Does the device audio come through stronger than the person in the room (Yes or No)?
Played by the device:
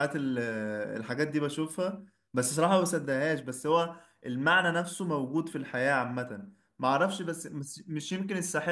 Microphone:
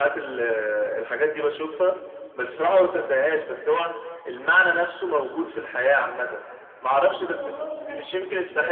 Yes